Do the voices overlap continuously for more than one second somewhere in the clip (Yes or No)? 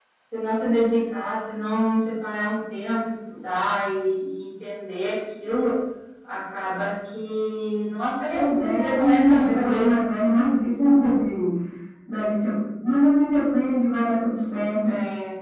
Yes